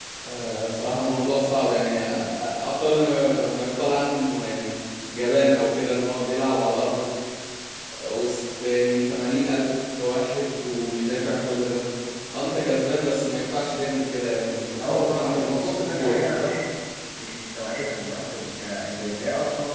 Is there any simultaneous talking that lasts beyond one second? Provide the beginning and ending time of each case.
14.8-16.2

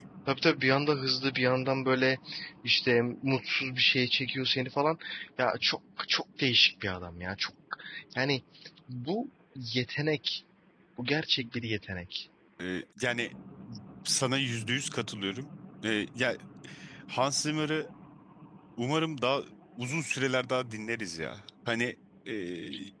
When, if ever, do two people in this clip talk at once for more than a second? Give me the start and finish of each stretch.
none

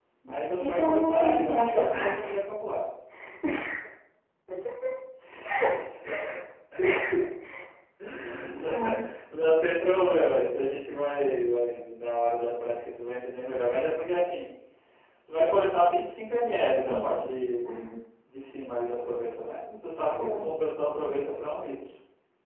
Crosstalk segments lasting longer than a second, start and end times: 0.6-2.3

